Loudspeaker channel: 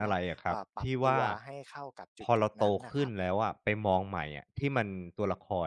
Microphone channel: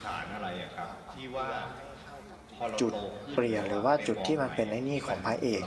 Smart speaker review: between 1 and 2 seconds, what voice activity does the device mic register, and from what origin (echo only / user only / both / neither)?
echo only